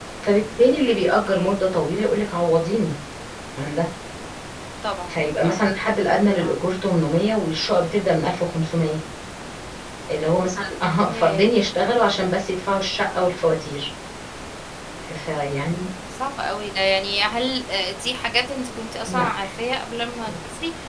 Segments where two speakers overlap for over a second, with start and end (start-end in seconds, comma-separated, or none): none